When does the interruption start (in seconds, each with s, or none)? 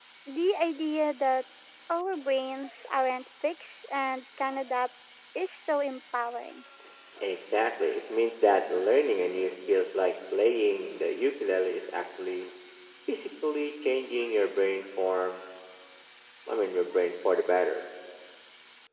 none